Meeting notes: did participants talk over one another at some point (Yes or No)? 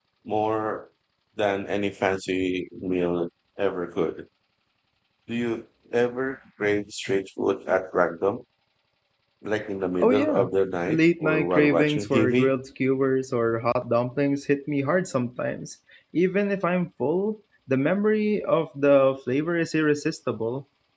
Yes